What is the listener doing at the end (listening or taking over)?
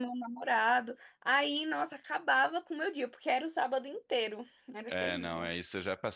taking over